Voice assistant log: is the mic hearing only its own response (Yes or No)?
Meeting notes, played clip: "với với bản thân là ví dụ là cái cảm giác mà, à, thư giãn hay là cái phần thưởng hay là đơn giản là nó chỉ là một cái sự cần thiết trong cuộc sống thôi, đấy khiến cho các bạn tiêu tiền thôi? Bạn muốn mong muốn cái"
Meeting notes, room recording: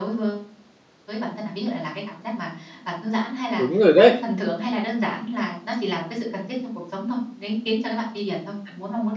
No